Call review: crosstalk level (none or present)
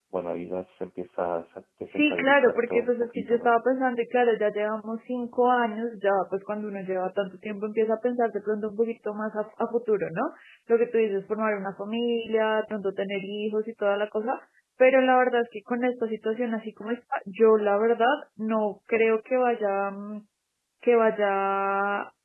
present